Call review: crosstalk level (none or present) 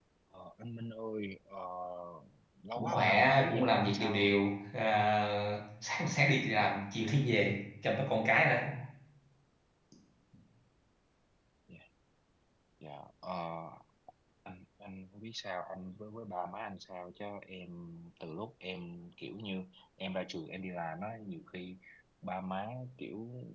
present